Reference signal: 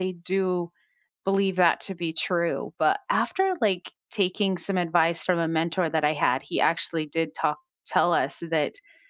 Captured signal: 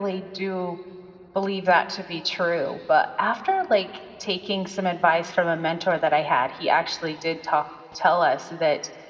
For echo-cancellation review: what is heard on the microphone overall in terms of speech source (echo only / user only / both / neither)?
echo only